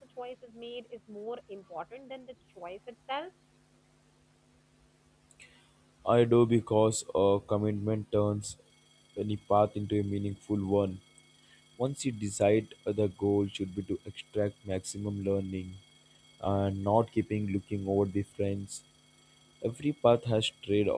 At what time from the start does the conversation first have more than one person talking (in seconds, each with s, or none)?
none